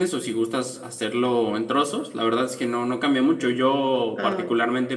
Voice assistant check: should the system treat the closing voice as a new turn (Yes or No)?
No